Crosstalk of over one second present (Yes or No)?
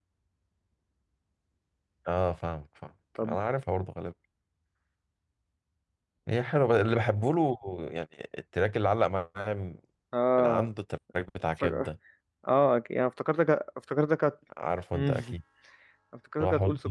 No